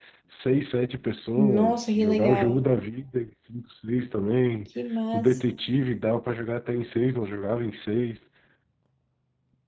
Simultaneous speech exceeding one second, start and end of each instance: 1.4-2.6

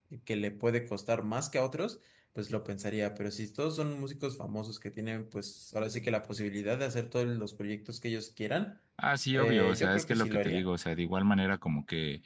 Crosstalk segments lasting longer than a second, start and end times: 9.4-10.7

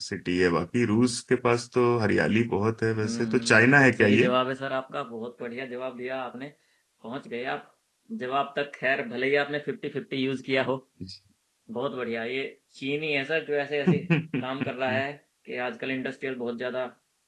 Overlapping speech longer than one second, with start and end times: 3.0-4.3

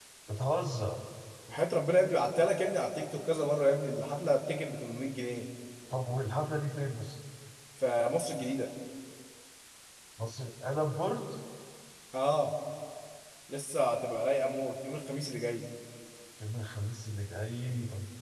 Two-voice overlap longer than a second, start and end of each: none

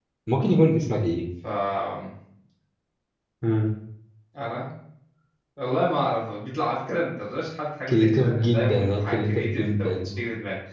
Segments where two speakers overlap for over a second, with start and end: 7.9-10.1

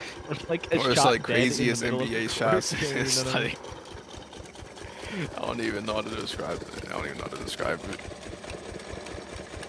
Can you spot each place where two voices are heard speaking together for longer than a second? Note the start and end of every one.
0.7-3.5

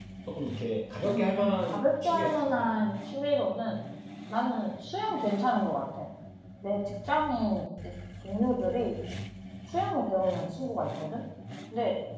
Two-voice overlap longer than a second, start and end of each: 1.0-2.7

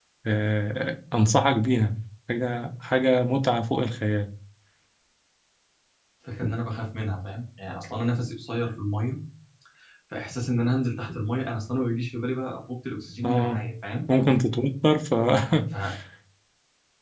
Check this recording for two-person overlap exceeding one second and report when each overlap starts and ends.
none

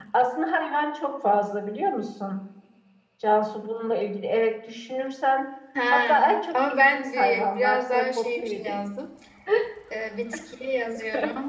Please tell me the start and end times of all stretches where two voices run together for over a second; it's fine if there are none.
5.9-8.8

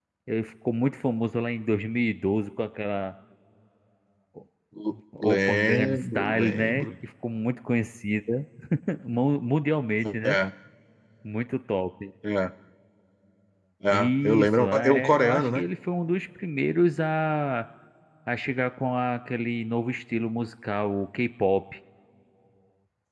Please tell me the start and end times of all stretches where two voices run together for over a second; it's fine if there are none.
5.2-6.9, 13.9-15.6

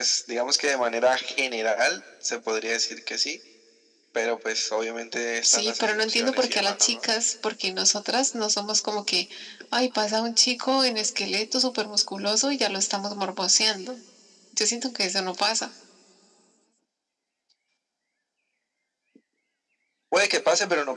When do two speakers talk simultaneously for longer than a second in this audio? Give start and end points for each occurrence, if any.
5.4-7.0

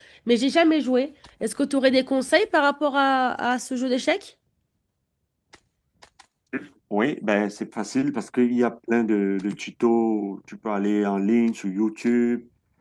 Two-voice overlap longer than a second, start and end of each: none

